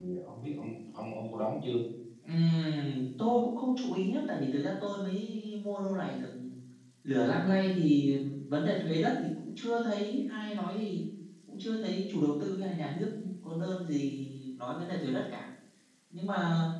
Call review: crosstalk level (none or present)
none